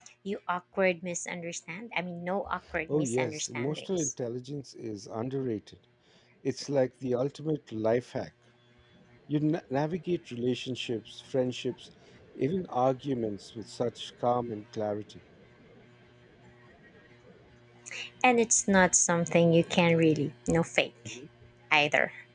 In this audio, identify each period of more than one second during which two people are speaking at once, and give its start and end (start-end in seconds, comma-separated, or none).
2.9-4.1